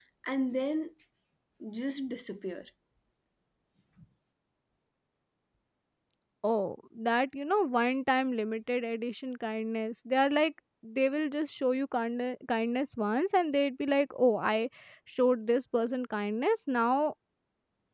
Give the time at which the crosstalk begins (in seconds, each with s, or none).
none